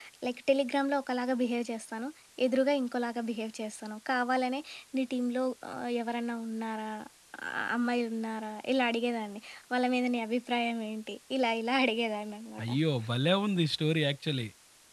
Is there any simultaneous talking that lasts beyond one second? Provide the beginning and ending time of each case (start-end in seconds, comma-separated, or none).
none